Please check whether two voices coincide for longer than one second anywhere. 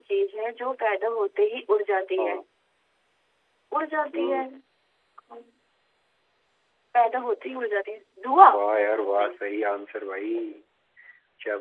No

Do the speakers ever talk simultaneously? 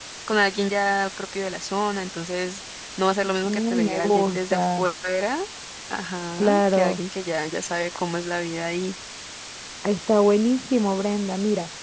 Yes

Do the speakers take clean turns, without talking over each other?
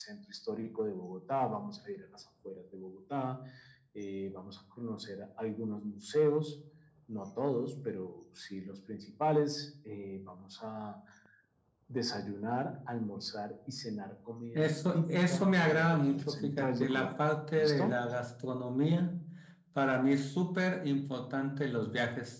No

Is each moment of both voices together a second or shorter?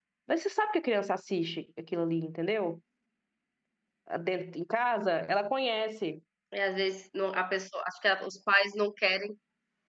Yes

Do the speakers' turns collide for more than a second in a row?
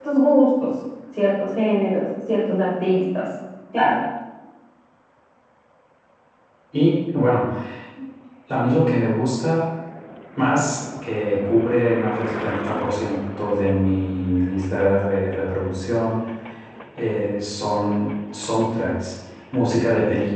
No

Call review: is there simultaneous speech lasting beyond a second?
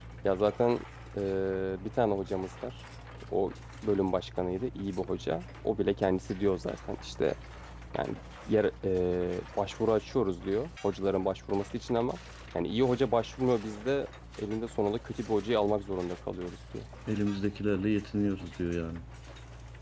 No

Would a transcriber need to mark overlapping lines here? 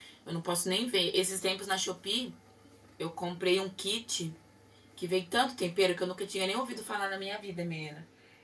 No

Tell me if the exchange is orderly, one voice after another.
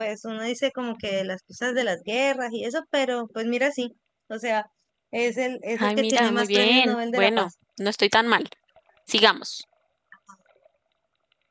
No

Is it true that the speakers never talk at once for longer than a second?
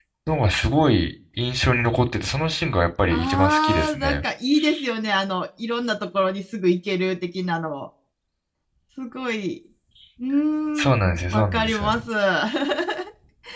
No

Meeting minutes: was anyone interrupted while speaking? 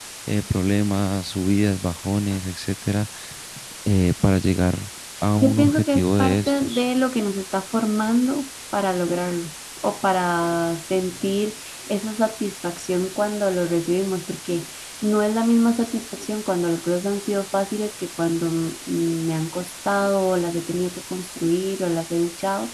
Yes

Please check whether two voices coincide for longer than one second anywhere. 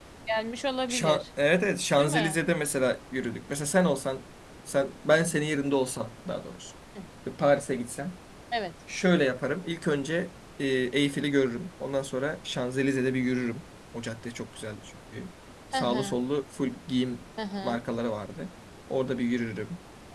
No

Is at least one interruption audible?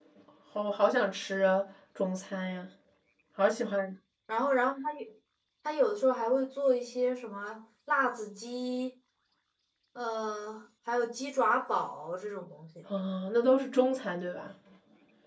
No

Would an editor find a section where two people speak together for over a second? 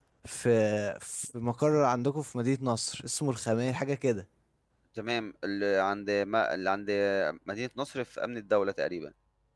No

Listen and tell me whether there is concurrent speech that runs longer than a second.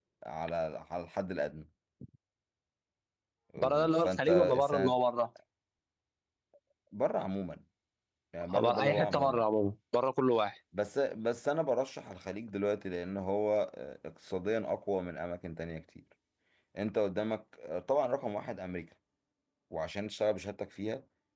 Yes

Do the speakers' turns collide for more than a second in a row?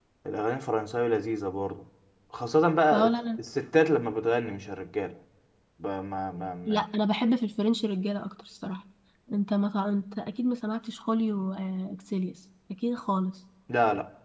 No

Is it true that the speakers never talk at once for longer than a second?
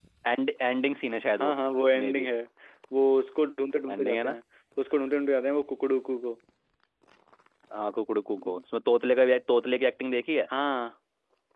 Yes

